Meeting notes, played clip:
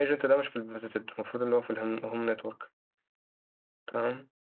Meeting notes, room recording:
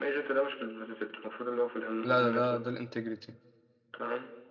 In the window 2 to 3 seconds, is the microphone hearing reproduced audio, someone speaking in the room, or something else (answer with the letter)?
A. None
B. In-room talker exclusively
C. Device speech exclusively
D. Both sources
D